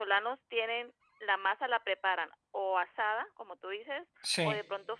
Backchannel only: Yes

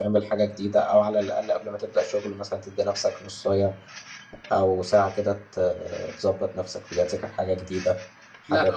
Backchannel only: No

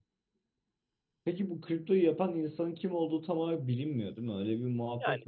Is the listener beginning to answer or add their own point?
Yes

